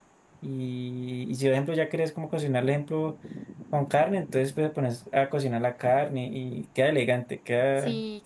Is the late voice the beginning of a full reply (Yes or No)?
Yes